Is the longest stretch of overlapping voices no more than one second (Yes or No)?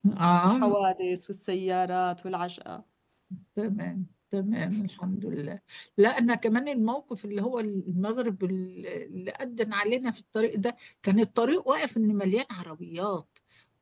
Yes